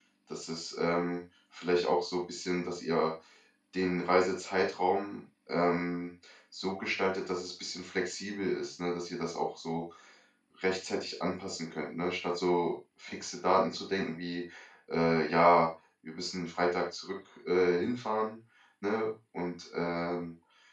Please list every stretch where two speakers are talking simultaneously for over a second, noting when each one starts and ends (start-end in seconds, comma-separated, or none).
none